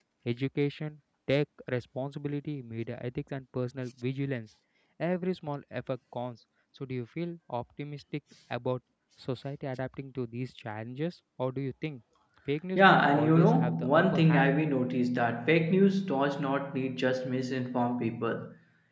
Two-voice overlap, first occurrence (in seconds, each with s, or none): 12.8 s